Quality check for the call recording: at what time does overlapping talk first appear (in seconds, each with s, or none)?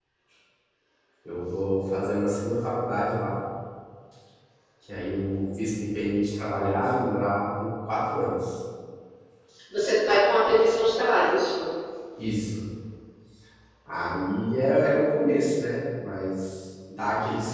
none